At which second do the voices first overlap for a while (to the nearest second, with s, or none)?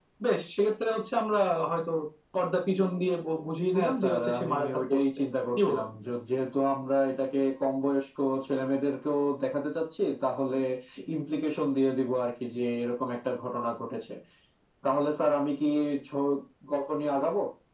4 s